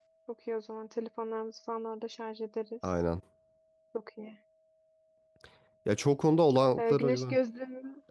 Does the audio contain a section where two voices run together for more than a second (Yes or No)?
No